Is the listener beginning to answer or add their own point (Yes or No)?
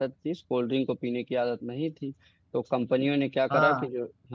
Yes